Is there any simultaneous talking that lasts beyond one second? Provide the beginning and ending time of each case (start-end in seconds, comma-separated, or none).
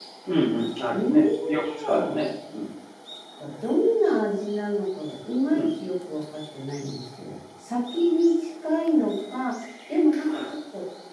0.9-2.2